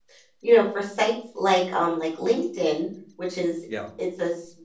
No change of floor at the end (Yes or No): Yes